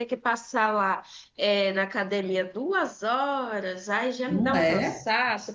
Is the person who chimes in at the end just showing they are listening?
Yes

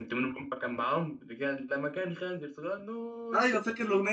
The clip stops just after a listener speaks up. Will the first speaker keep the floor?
No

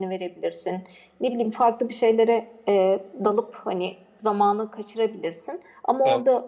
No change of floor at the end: Yes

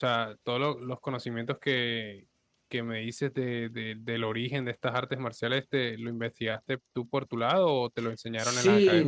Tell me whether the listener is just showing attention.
No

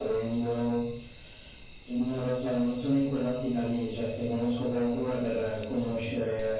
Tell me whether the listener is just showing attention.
Yes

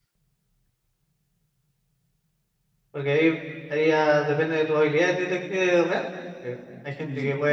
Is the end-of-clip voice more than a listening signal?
No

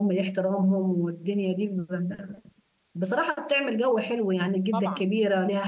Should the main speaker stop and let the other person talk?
No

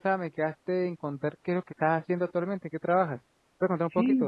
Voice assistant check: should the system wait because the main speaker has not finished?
No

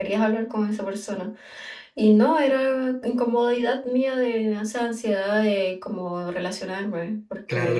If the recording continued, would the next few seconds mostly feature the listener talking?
Yes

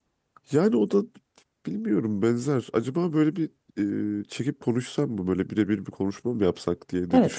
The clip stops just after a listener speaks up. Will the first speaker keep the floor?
No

